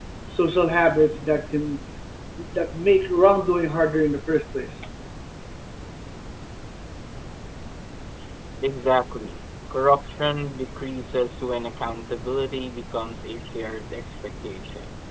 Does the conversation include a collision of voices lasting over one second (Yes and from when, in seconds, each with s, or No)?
No